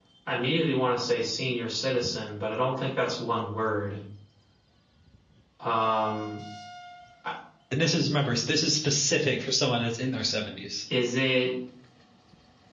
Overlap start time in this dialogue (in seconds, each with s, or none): none